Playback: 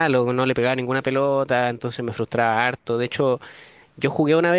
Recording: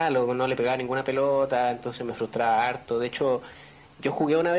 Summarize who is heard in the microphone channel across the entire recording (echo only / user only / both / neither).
echo only